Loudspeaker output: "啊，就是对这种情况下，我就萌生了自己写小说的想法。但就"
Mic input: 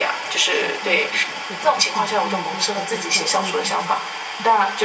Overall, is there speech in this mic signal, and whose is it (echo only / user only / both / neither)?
both